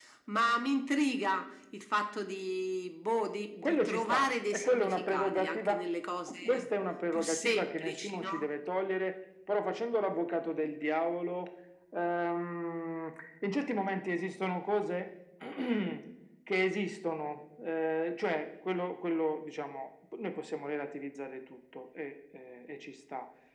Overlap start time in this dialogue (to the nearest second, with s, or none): 4 s